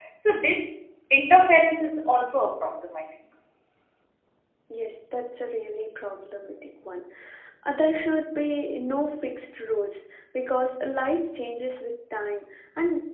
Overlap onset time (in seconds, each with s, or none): none